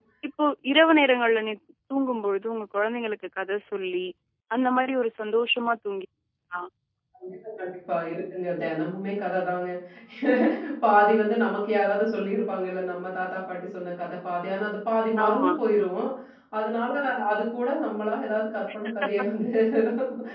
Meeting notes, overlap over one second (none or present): none